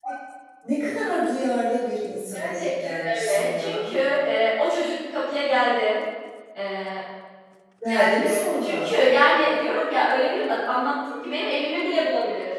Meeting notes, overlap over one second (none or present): present